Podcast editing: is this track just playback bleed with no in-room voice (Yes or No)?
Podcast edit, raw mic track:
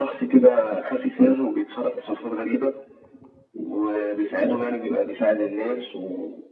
Yes